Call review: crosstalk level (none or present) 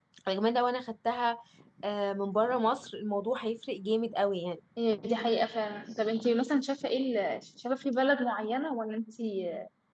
none